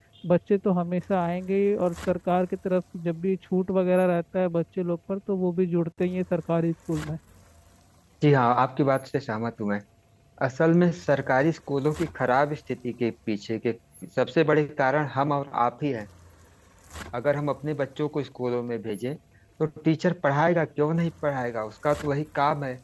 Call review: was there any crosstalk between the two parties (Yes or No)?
No